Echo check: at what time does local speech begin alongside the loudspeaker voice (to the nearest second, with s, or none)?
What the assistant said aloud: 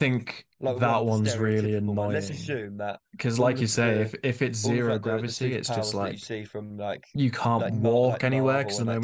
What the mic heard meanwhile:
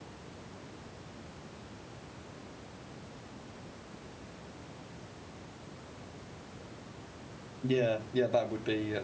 8 s